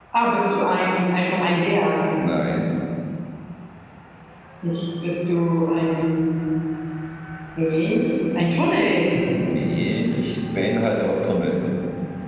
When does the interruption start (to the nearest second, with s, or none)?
none